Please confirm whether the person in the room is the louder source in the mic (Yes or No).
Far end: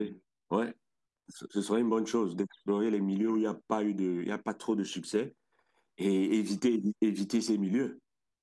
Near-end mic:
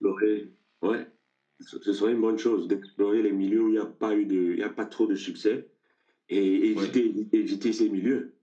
No